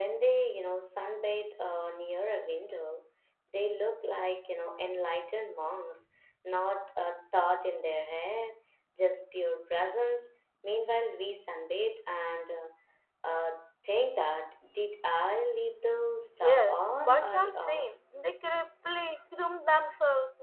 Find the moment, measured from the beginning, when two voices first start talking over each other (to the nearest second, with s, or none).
16 s